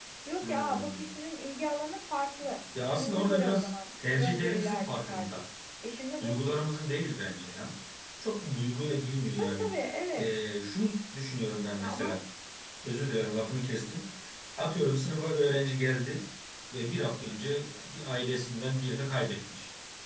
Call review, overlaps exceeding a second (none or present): present